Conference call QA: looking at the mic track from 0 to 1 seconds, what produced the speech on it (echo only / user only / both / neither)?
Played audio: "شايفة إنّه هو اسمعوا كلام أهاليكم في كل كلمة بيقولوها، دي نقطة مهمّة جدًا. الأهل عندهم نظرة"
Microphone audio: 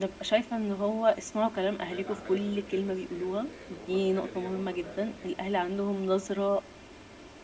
echo only